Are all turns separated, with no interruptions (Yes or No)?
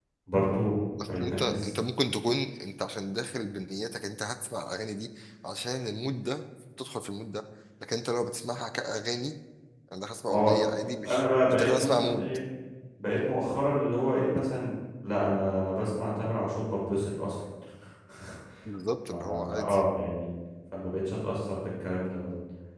No